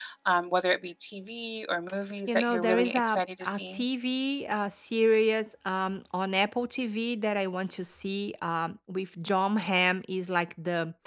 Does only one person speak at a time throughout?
No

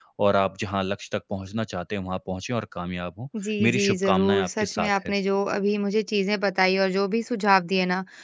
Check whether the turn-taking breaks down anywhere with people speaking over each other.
Yes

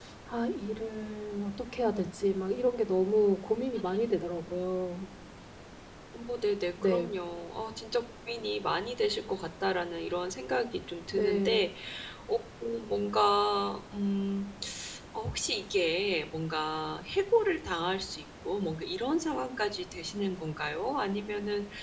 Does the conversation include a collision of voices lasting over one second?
No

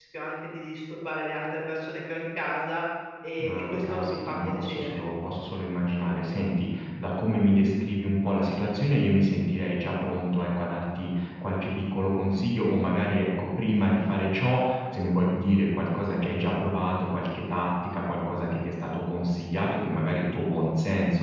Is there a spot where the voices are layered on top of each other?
Yes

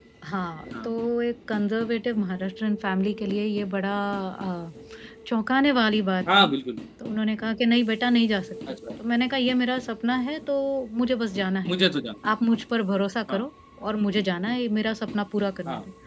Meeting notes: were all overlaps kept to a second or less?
Yes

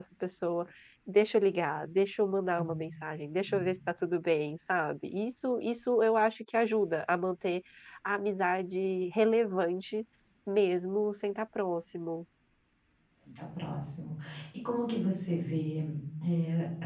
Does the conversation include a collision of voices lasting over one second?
No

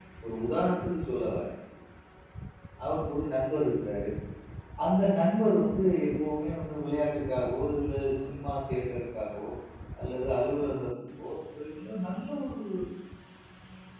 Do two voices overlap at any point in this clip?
No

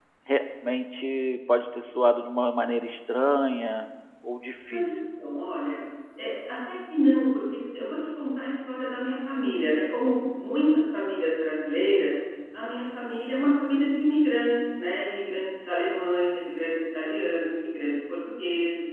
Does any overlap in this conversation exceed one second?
No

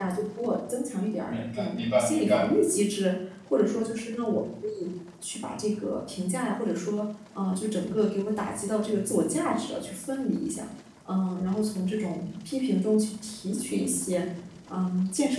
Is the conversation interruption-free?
No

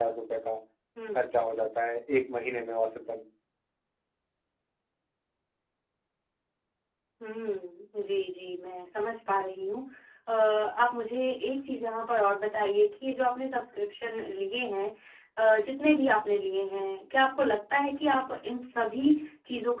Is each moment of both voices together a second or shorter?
Yes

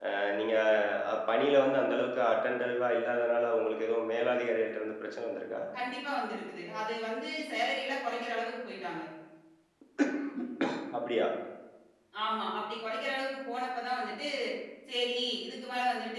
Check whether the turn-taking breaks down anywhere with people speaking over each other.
No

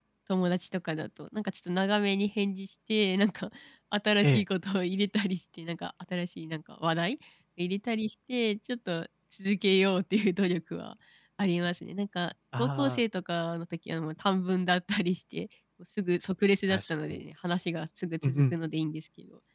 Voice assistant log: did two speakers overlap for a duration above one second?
No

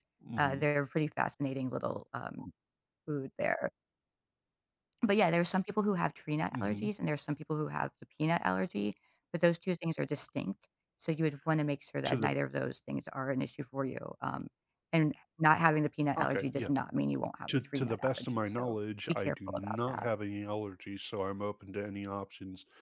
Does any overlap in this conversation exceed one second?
Yes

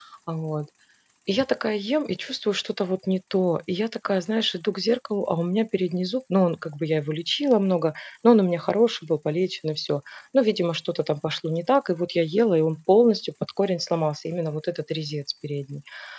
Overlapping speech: No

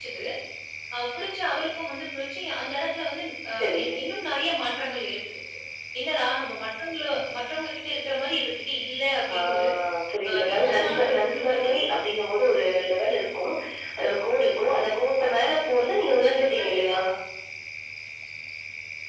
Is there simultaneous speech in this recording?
Yes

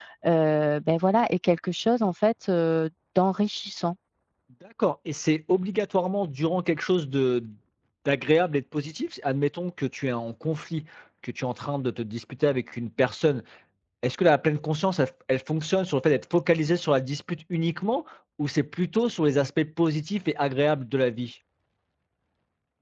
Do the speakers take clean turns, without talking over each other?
Yes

